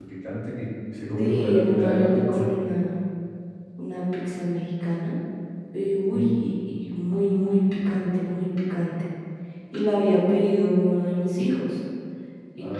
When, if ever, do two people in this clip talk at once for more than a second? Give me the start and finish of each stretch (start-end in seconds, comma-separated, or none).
1.2-2.5